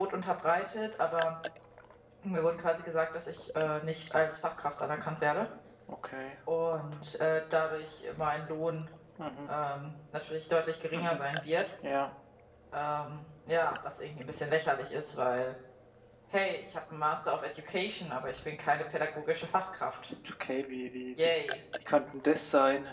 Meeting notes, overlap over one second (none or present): none